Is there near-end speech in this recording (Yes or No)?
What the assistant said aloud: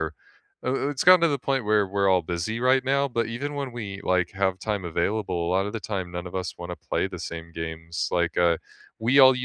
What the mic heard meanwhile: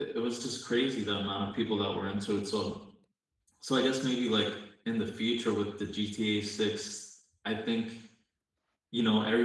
Yes